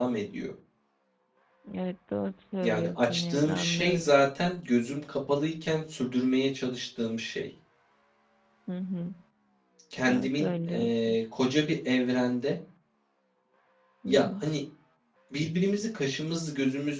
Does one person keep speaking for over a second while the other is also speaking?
Yes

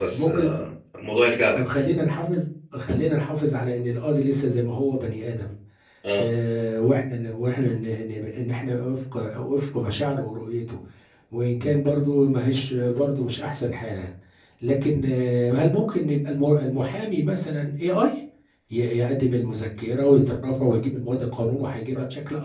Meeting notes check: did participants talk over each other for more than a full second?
No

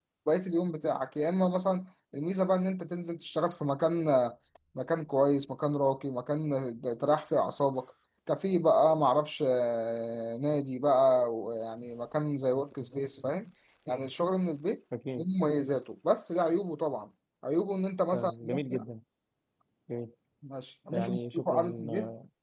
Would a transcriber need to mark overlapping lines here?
Yes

